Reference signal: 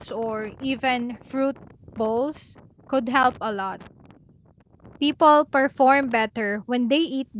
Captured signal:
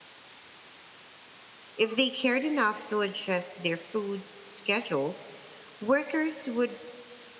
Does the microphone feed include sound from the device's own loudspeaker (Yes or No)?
No